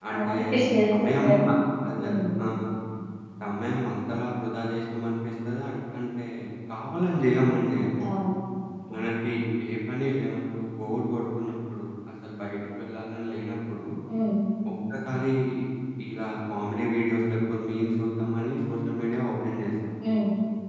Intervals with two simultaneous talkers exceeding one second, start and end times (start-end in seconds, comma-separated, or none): none